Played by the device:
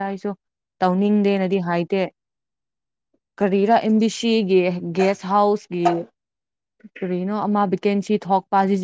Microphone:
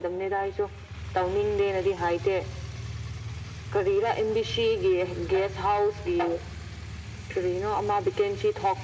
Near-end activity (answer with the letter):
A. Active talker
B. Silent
B